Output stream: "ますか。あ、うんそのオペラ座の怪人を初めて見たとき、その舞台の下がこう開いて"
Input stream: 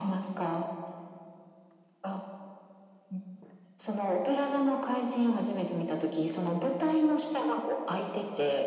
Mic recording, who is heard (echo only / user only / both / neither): echo only